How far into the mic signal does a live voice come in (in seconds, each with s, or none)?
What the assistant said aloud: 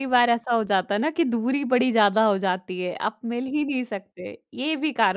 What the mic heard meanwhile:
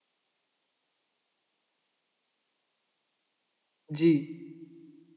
3.9 s